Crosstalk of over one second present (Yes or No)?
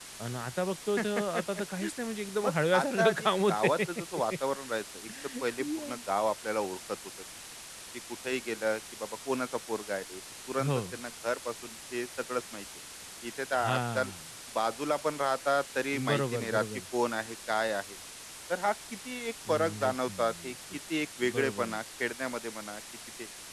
Yes